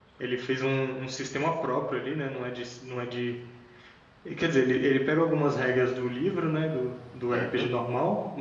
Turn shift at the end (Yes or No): No